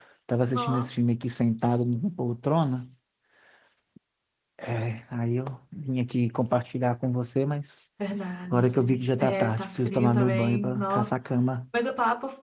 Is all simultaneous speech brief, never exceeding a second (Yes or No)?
No